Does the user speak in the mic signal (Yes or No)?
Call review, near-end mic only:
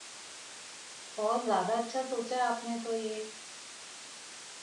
Yes